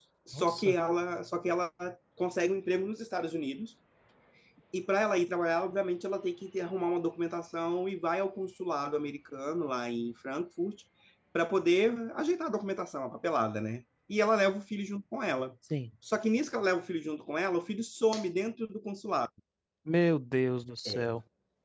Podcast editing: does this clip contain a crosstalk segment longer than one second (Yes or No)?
No